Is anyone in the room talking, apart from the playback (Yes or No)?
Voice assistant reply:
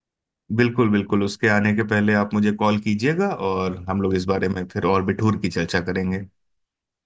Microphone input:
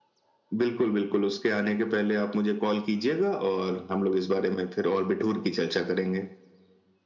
No